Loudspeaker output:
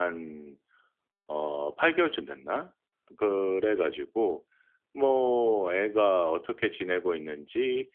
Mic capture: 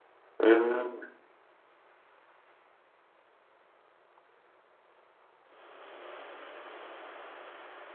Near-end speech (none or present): present